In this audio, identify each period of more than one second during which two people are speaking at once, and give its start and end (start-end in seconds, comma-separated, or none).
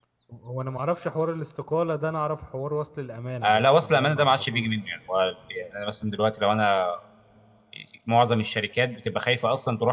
3.4-4.7